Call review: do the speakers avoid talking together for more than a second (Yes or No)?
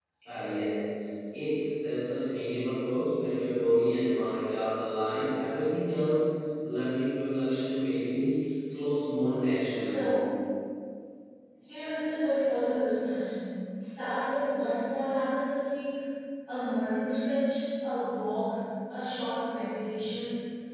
Yes